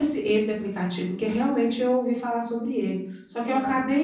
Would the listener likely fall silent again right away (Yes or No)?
Yes